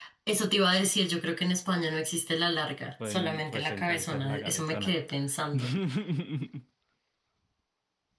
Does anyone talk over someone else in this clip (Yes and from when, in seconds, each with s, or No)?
Yes, from 3.0 s